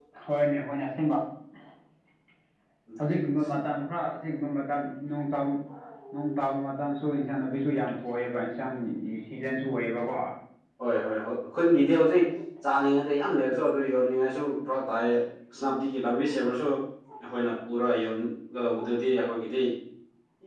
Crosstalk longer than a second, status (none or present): none